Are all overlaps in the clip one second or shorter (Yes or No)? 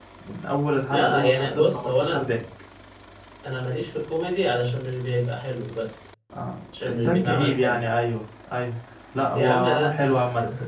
No